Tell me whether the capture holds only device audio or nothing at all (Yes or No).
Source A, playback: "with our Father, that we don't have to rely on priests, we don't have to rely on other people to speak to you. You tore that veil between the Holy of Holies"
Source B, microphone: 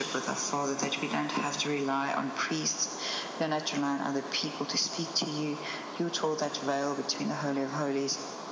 Yes